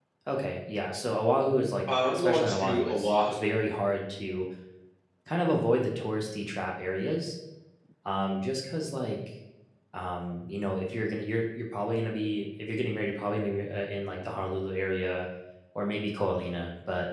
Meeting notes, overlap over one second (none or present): present